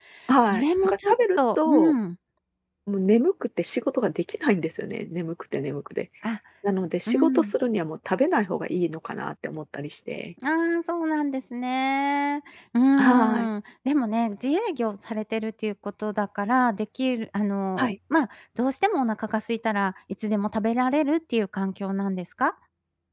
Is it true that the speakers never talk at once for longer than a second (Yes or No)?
No